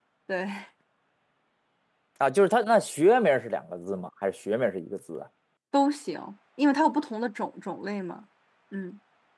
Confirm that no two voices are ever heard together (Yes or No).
Yes